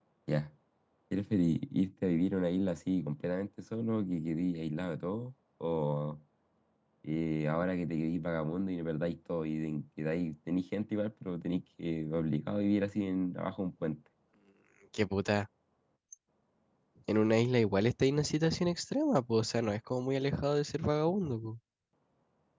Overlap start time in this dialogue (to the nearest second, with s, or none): none